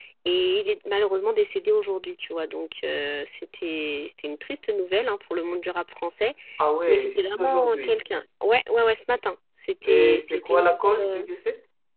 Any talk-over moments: Yes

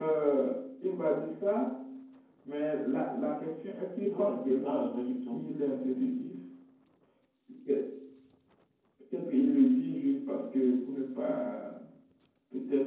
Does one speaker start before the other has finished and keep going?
Yes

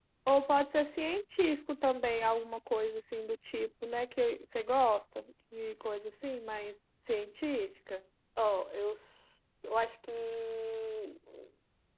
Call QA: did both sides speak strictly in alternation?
Yes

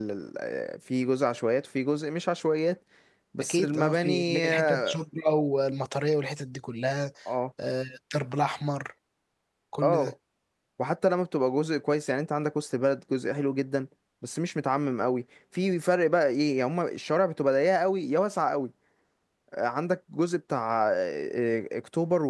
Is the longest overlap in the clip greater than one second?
Yes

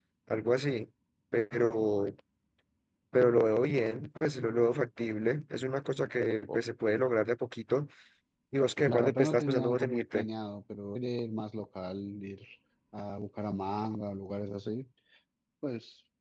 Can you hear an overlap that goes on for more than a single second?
Yes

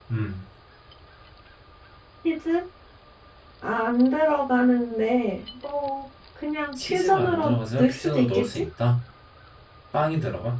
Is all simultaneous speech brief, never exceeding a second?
No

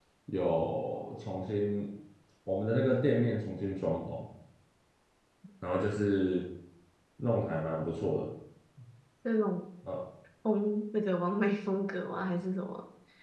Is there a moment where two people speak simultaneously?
No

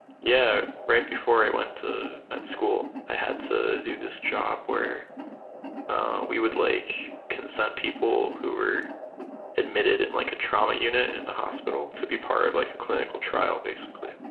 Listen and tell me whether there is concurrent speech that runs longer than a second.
No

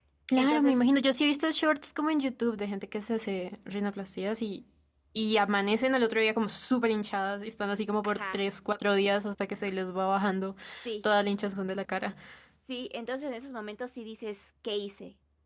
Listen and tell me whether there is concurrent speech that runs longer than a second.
No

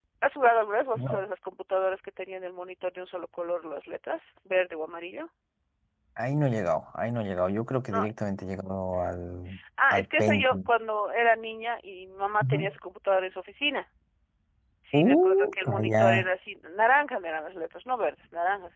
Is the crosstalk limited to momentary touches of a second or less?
No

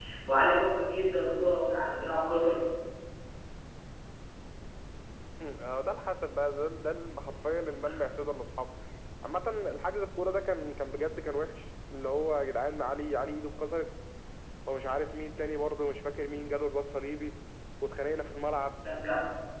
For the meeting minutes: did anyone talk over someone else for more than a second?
No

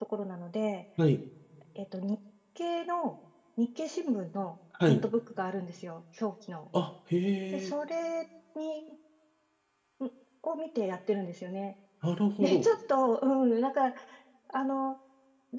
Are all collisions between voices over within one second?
Yes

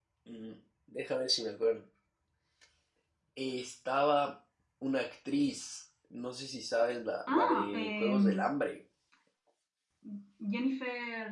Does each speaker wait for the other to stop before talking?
No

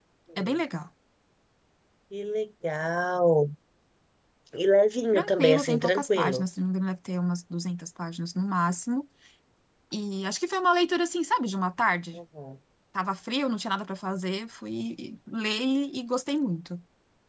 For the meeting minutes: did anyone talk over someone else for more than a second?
Yes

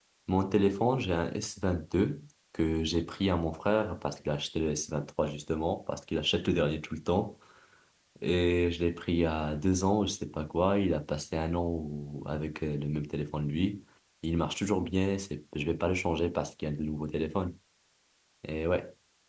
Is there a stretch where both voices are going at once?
No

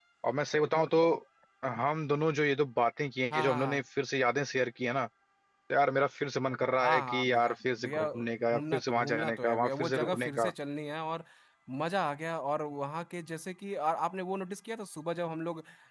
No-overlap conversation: No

